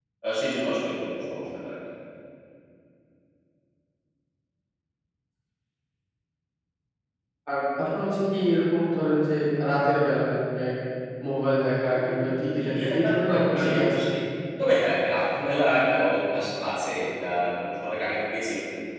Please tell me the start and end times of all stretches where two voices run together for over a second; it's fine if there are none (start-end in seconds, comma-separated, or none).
12.6-14.0